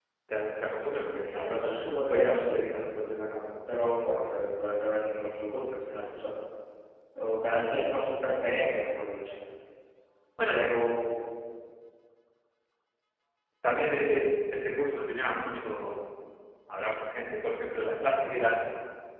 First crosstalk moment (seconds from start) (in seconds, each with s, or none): 1.2 s